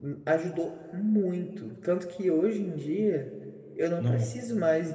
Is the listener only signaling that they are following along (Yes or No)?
Yes